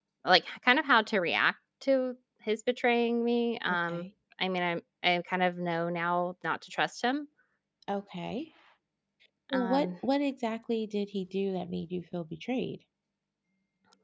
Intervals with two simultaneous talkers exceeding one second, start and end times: none

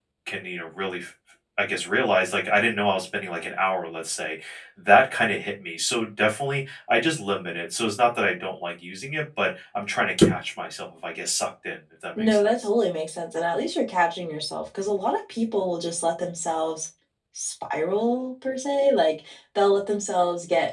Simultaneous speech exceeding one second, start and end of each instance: none

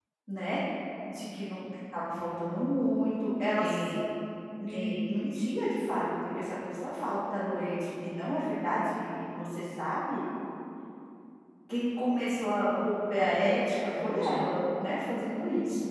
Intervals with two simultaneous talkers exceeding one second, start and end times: 13.1-14.5

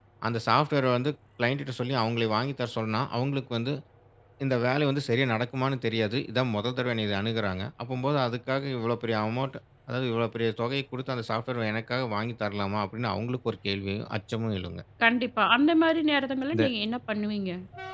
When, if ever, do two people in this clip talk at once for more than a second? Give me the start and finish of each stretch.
none

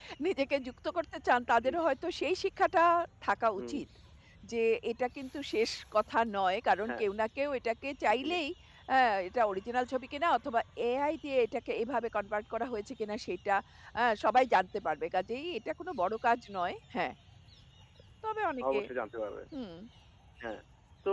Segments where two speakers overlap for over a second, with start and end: none

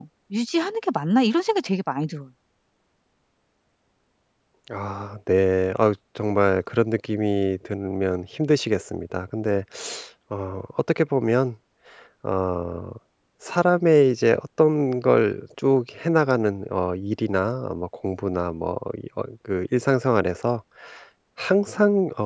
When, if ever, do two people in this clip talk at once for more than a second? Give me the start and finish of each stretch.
none

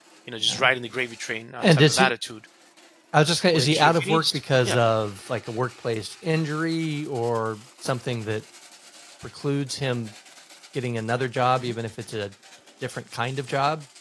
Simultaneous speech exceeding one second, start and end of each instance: 3.5-4.8

